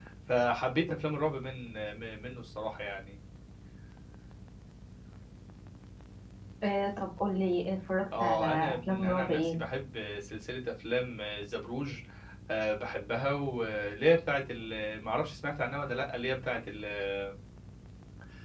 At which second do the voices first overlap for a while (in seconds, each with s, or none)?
8.1 s